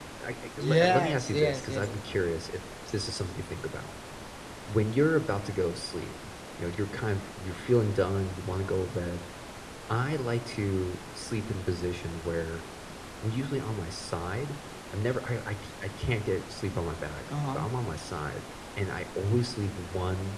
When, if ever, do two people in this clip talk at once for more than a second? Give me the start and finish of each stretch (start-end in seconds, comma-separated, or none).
0.6-1.9